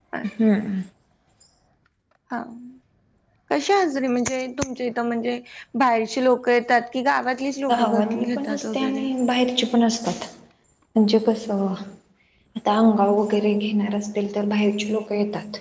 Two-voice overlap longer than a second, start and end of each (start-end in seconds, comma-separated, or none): 7.7-9.1